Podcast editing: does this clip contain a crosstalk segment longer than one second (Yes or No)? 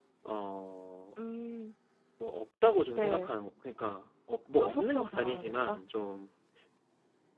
Yes